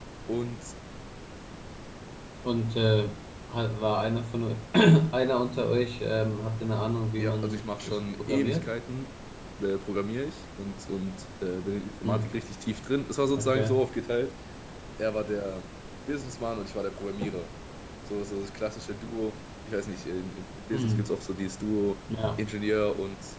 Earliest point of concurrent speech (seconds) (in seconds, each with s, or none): 7.2 s